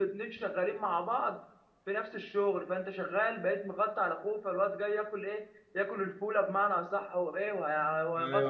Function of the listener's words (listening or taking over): taking over